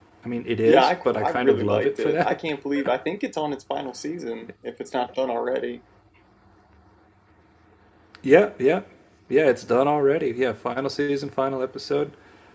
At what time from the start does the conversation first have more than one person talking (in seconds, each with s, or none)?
0.7 s